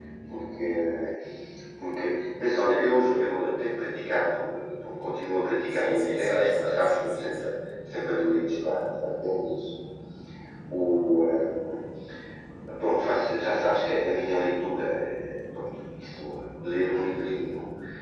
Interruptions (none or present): present